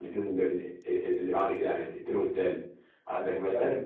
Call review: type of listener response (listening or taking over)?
listening